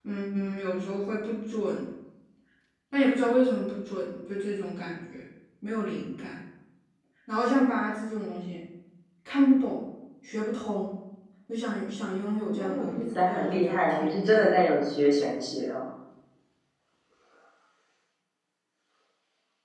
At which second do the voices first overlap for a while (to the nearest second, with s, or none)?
13 s